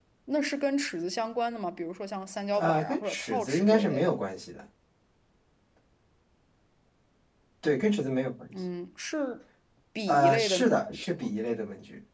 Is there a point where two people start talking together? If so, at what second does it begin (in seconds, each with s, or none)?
2.5 s